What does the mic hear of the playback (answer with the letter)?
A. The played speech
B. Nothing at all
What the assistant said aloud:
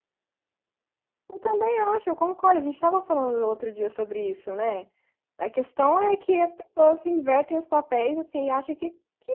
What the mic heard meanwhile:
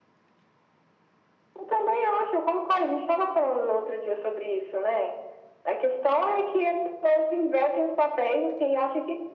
A